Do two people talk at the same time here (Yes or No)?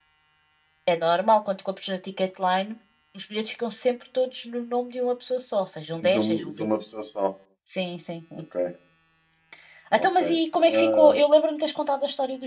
Yes